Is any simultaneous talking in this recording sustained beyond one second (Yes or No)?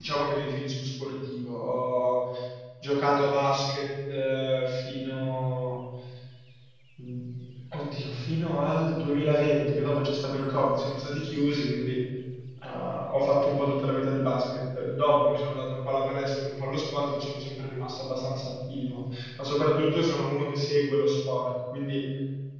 No